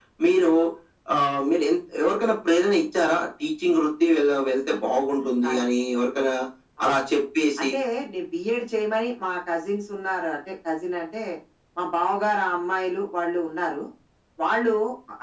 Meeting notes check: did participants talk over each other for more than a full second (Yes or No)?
No